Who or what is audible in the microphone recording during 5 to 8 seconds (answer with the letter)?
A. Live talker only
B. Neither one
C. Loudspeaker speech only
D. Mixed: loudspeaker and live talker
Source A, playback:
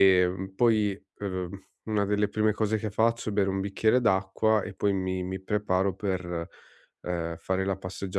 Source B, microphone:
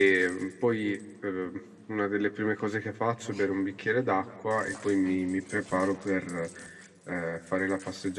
C